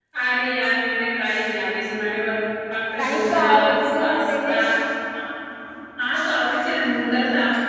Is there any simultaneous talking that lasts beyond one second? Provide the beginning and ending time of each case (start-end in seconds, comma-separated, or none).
3.1-4.6